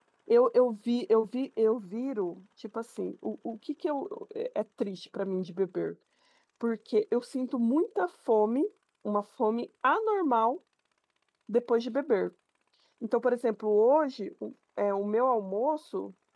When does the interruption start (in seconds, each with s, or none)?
none